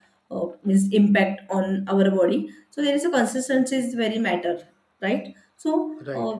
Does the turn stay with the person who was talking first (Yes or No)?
No